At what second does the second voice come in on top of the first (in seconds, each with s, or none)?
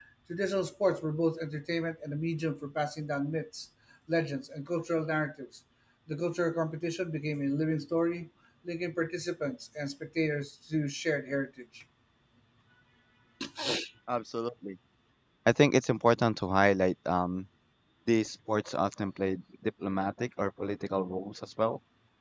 none